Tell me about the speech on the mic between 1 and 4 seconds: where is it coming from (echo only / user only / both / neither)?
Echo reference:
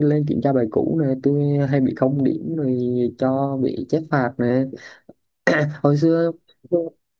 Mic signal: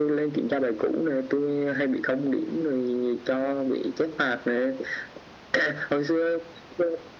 echo only